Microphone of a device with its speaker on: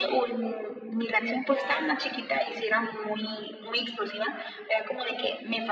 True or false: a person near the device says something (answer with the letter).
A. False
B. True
B